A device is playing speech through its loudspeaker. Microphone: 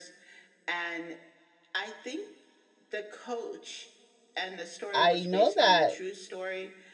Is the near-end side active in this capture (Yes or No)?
Yes